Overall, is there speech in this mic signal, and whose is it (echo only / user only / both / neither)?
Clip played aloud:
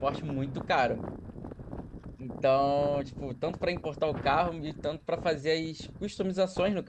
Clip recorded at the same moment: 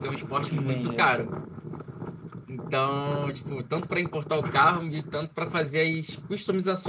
both